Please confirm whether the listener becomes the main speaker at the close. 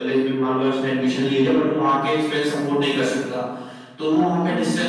No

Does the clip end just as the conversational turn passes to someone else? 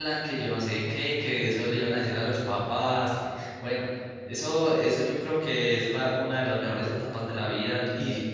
No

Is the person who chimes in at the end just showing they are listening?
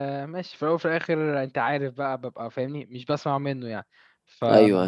No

